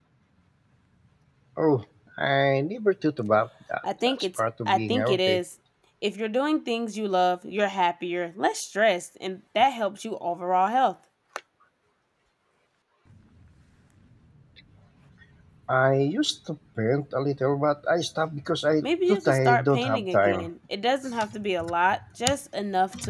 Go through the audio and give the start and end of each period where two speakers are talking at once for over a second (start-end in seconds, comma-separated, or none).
3.8-5.4, 18.8-20.5